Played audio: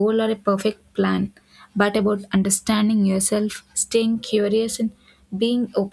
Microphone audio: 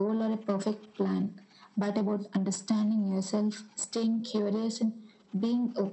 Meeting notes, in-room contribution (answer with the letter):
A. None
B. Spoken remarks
A